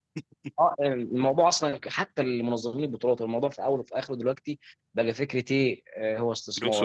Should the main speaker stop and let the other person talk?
No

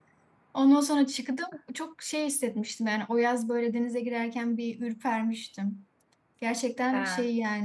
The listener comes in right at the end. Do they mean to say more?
No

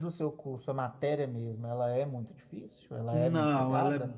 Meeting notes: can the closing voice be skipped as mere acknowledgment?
No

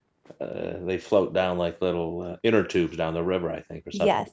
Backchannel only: Yes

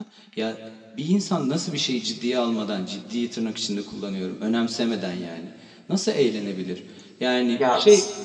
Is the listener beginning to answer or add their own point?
Yes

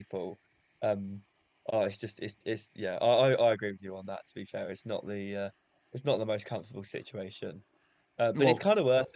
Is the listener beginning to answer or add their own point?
No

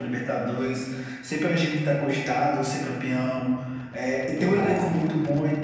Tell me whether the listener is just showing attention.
Yes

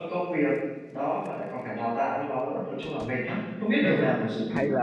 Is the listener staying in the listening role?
No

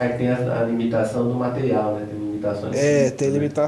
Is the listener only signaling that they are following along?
No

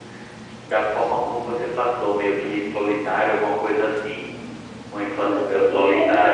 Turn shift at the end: Yes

